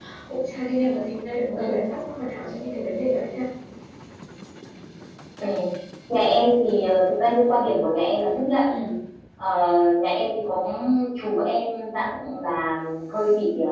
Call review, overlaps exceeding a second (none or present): none